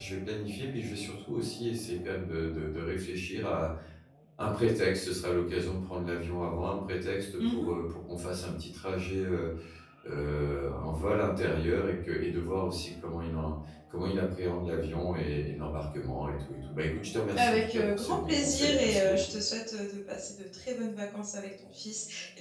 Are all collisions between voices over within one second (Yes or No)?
No